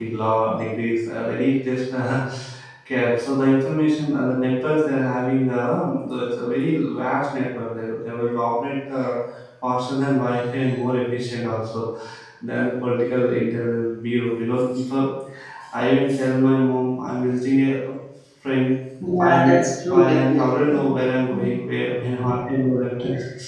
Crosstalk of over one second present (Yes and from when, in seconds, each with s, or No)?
Yes, from 19.2 s